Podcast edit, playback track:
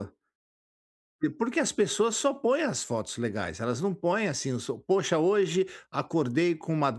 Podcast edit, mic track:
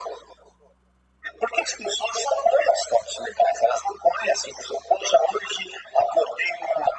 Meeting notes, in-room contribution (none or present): none